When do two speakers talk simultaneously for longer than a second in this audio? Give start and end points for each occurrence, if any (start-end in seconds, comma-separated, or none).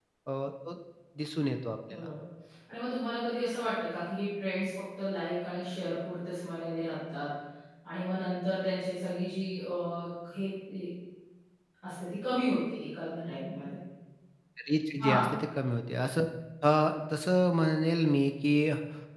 none